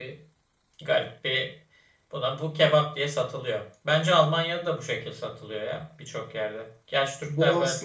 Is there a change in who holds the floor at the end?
Yes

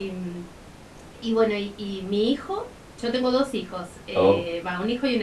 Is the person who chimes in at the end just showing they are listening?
Yes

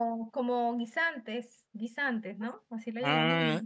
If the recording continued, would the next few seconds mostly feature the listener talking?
Yes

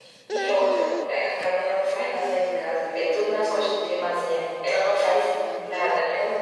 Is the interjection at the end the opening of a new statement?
No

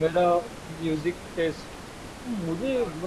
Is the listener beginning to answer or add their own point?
No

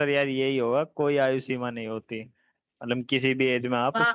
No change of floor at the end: Yes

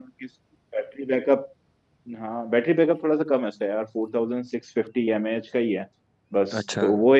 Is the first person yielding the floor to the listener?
No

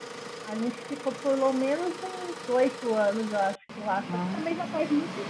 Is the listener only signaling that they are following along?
Yes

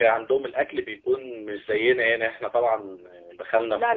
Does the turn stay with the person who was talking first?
Yes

